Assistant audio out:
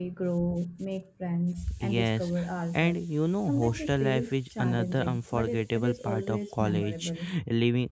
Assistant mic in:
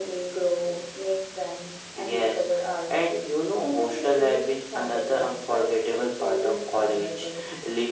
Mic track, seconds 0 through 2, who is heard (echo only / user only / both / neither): echo only